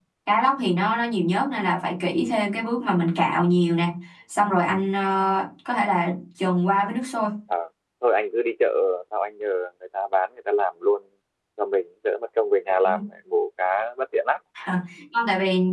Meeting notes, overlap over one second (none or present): none